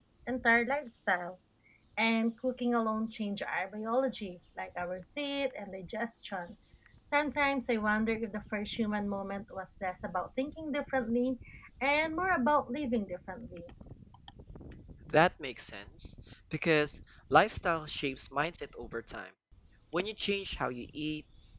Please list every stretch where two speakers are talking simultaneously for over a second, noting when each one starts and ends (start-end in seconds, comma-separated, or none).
none